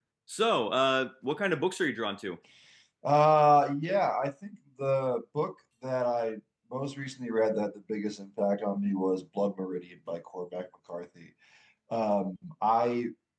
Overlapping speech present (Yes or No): No